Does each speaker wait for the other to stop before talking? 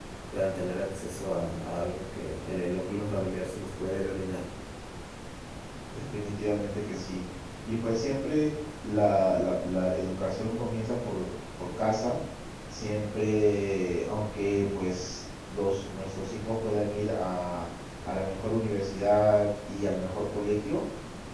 Yes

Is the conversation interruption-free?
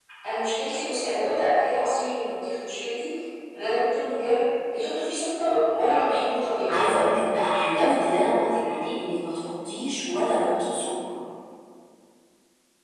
Yes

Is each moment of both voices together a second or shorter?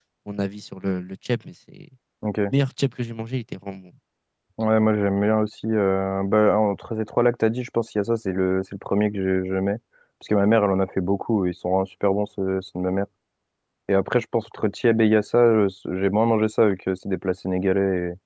Yes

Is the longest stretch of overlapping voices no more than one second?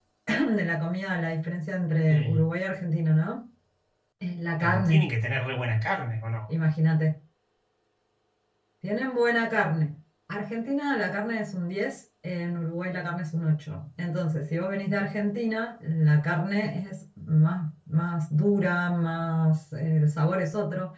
Yes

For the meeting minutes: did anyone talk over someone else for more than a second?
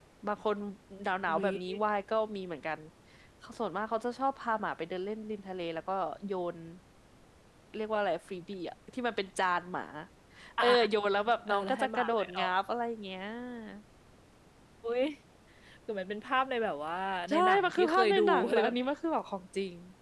Yes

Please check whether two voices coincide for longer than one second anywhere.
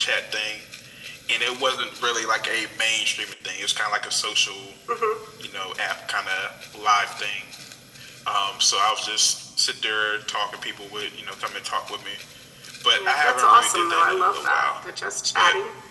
Yes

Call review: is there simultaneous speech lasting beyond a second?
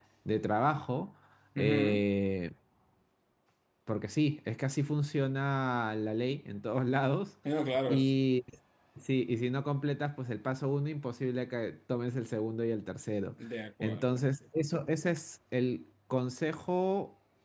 No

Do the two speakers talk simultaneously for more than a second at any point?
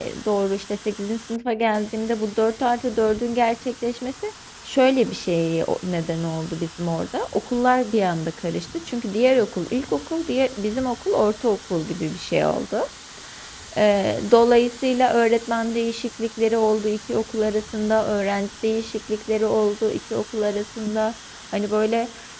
No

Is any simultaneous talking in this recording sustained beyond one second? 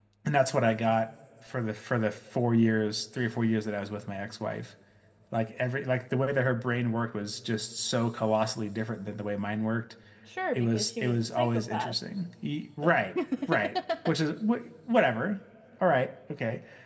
Yes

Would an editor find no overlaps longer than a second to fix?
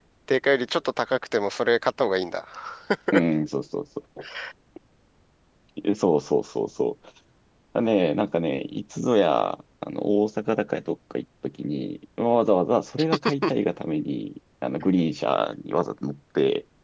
Yes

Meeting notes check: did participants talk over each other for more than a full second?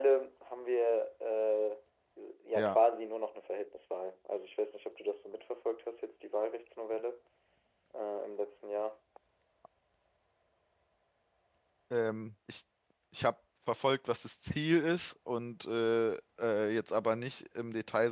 No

